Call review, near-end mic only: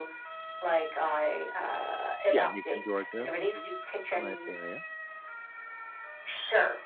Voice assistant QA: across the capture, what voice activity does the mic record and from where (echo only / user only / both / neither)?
both